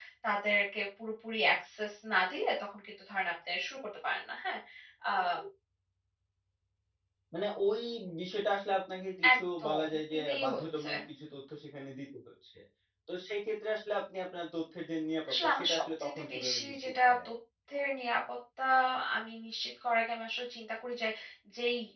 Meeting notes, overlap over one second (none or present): present